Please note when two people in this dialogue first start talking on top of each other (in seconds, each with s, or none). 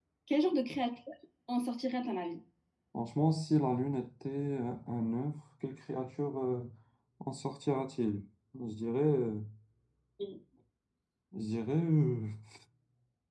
none